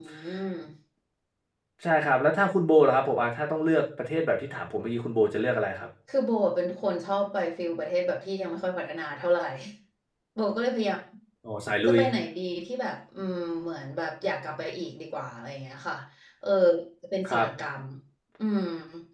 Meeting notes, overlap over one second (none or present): none